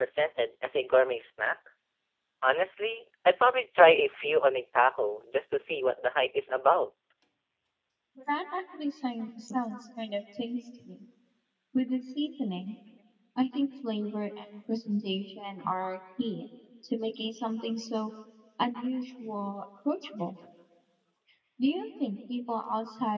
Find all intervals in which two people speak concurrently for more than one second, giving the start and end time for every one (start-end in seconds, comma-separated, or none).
none